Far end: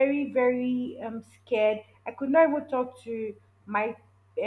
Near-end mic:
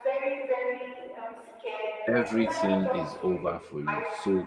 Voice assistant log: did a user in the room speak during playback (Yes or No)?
Yes